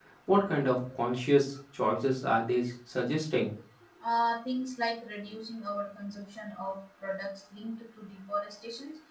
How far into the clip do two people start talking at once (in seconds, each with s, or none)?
none